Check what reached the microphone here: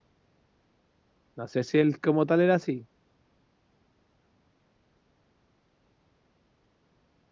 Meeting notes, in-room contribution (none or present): present